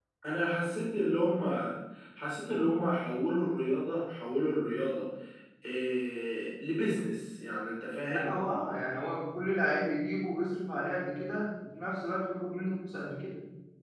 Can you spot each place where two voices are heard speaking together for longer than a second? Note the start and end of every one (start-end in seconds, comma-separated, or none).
none